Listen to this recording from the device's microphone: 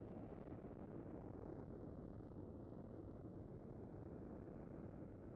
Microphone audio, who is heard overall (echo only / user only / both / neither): neither